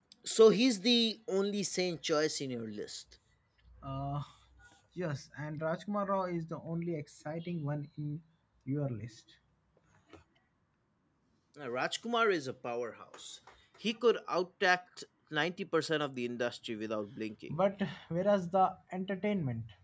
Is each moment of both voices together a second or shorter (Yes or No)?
Yes